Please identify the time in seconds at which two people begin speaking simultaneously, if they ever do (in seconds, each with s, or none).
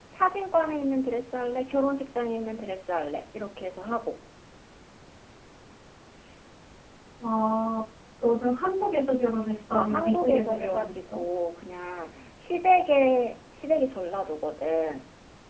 9.7 s